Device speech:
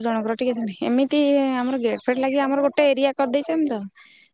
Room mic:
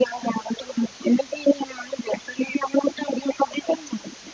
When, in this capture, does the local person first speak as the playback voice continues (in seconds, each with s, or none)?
none